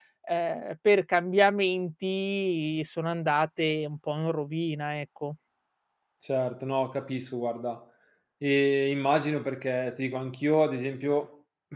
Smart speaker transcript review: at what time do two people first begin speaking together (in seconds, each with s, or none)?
none